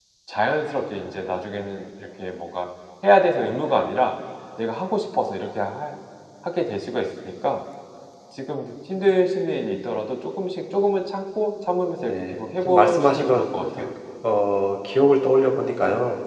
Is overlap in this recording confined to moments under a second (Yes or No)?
No